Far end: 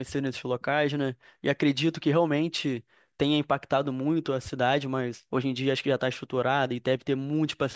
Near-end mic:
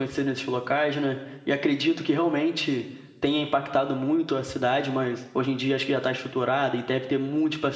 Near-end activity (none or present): none